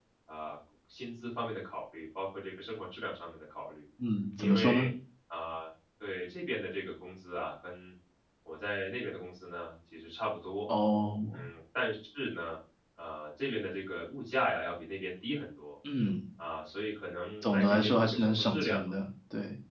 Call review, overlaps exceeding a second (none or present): present